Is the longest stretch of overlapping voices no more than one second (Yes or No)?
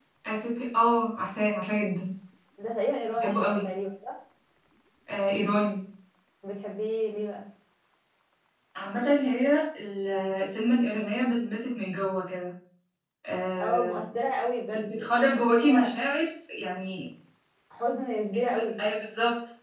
No